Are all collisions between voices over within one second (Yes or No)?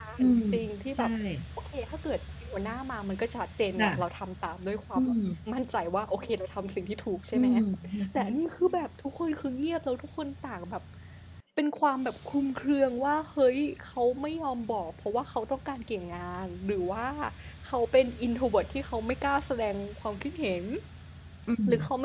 Yes